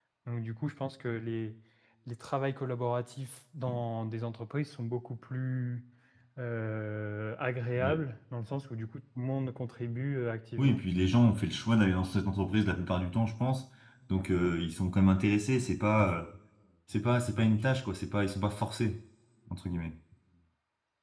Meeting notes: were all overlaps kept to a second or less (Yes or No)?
Yes